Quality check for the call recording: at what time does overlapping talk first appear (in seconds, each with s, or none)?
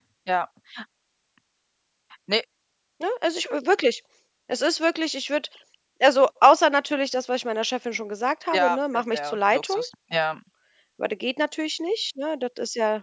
8.5 s